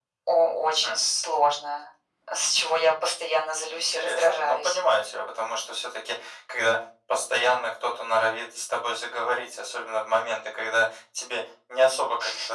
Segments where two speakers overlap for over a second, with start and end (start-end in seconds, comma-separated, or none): 3.5-4.8